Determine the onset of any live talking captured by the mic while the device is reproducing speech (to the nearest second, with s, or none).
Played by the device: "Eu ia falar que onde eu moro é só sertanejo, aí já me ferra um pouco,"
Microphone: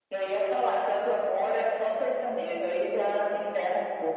none